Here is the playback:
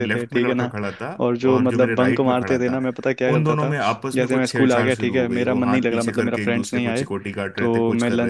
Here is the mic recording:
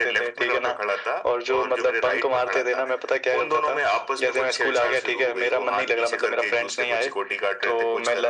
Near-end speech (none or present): none